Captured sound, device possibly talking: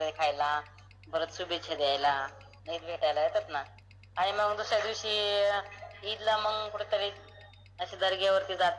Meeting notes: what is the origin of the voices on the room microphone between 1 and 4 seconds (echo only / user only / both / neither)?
echo only